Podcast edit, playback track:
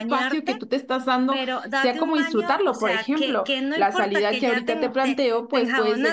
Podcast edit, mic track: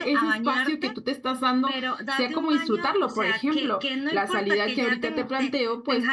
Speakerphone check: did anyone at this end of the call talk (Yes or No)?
No